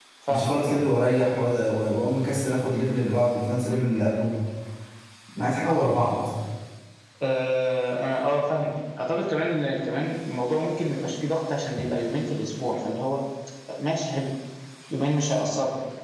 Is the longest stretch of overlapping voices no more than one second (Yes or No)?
Yes